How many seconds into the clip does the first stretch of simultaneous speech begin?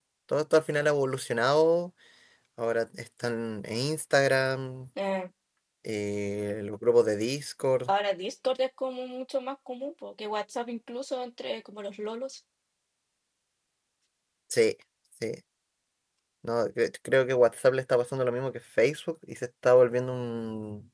none

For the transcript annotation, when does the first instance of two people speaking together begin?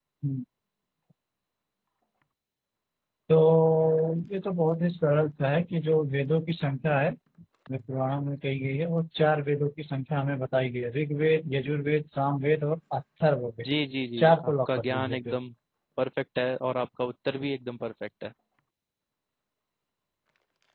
14.2 s

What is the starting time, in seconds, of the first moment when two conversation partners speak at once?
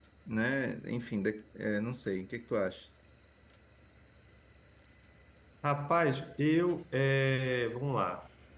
none

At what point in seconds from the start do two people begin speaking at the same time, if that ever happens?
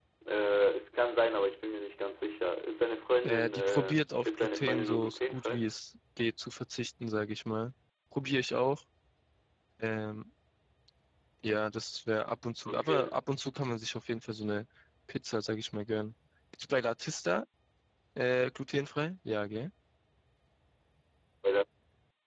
3.2 s

